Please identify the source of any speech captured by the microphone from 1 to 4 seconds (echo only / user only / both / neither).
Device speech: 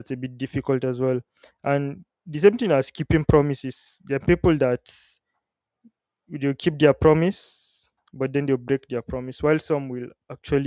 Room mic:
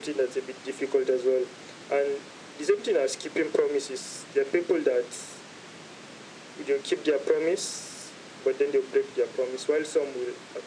echo only